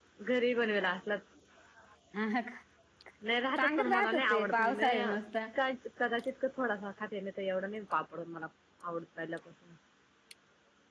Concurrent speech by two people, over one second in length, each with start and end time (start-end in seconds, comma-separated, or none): 3.6-5.1